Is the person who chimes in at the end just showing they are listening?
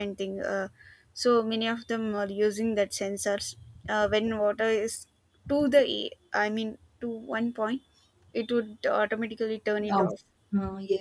No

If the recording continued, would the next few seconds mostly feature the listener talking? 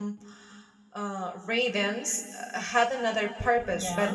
No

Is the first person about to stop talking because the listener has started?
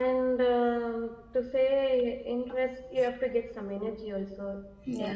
No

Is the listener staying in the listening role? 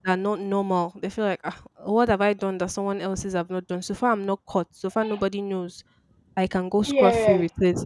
Yes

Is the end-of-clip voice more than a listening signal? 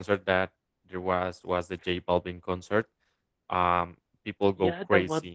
Yes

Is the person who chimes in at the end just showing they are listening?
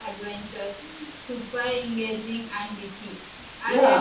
No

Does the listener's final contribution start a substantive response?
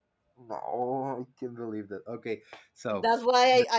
Yes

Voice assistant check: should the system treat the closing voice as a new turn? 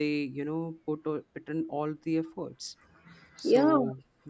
No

